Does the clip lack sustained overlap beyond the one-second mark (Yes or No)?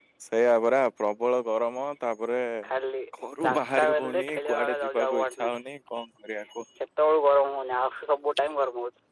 No